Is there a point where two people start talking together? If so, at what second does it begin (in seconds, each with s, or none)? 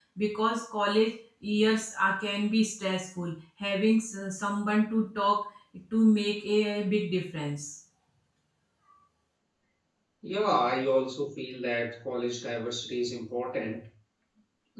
none